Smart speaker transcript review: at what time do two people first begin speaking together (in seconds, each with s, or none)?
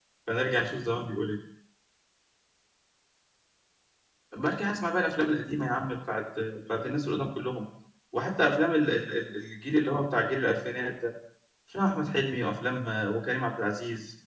none